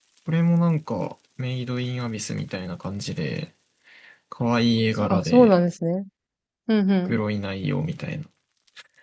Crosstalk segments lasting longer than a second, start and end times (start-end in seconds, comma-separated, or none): none